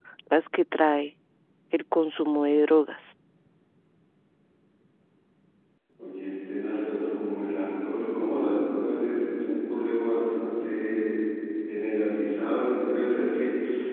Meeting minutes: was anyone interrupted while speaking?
No

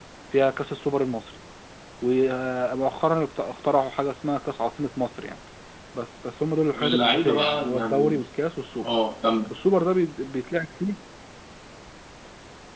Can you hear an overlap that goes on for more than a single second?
Yes, from 6.7 s

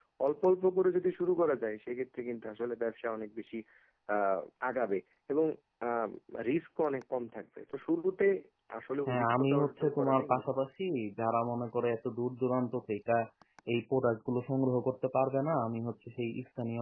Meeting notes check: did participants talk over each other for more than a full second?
Yes, from 9.1 s

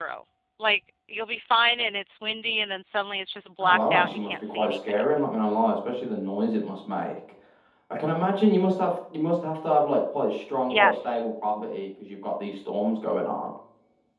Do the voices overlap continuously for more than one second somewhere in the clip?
Yes, from 3.6 s

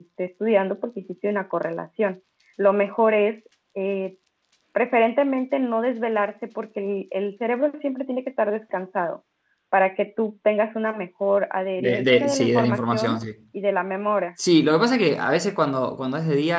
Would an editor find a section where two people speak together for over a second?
Yes, from 11.8 s

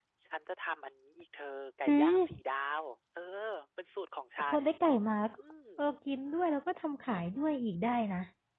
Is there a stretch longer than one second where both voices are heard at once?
No

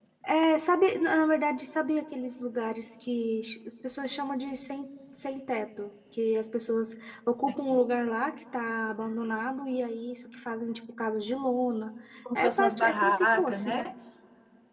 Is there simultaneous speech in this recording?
Yes, from 12.4 s

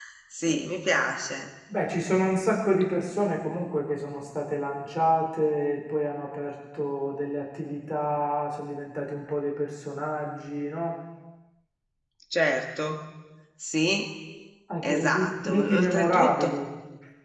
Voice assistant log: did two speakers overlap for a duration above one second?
Yes, from 14.8 s

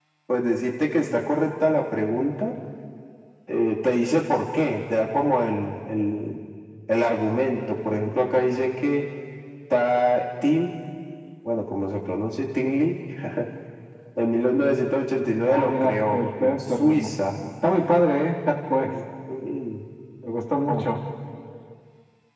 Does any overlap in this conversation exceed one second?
Yes, from 15.5 s

